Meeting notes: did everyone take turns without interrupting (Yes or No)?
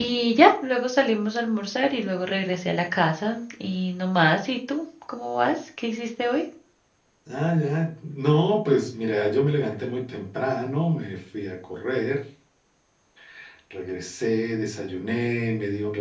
Yes